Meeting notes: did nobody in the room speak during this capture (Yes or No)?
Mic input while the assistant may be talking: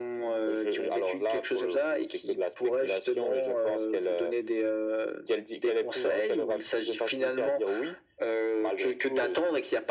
Yes